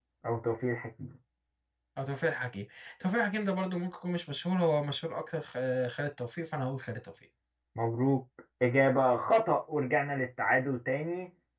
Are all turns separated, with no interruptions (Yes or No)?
Yes